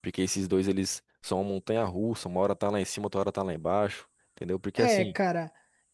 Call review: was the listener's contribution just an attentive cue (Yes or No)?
No